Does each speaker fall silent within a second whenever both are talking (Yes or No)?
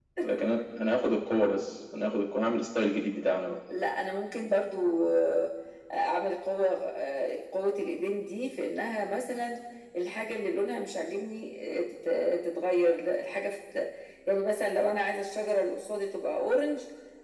Yes